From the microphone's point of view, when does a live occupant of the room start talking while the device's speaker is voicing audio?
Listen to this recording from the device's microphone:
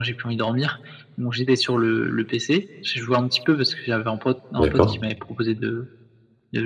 4.6 s

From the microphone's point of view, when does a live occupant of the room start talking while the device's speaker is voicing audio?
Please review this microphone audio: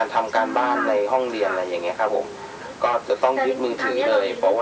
0.3 s

